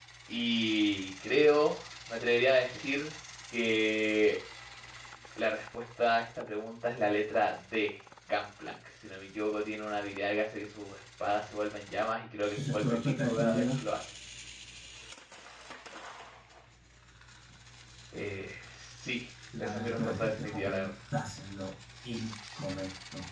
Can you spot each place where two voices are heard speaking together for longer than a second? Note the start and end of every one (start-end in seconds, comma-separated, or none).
12.6-13.8, 19.6-20.9